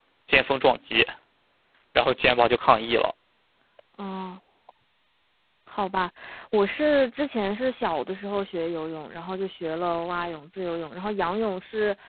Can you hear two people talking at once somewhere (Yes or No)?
No